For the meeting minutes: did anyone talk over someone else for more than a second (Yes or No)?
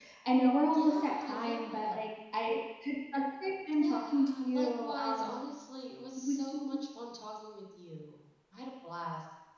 Yes